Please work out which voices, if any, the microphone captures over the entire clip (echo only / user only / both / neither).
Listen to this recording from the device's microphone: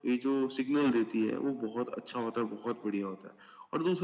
echo only